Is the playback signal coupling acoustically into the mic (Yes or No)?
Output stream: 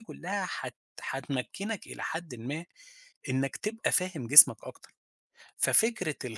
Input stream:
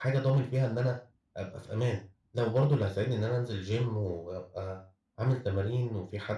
No